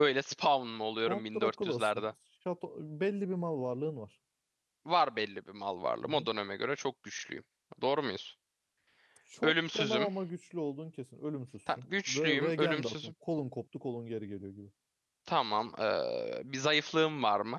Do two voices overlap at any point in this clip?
Yes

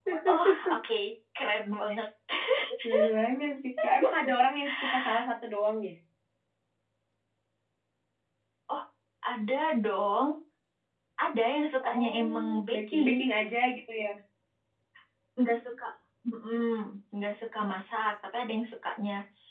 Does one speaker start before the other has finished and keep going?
Yes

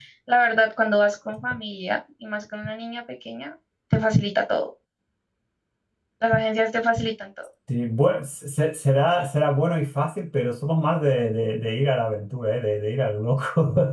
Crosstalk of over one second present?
No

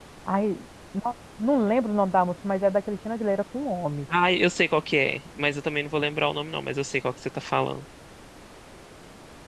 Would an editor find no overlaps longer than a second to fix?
Yes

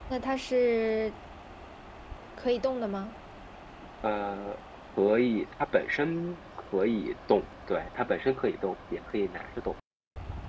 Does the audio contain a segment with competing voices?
No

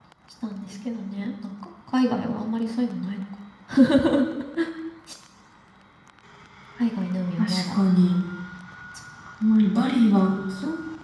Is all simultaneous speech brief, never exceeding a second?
Yes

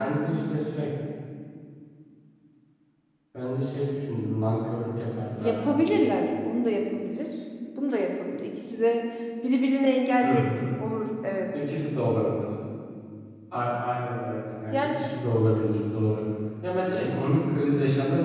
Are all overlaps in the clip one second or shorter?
Yes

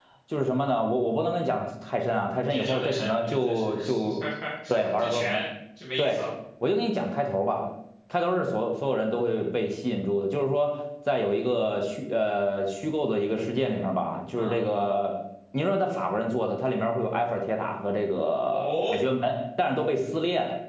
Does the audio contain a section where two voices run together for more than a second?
Yes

